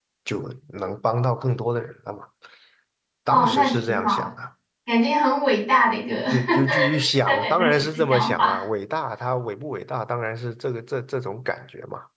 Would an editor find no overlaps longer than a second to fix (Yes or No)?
No